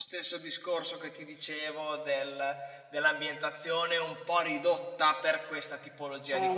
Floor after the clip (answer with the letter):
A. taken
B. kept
A